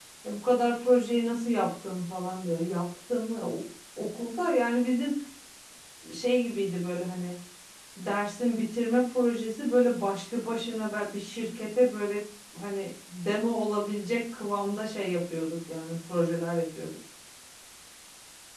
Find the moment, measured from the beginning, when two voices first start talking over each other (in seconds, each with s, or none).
none